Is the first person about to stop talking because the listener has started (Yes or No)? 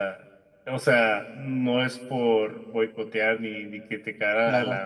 No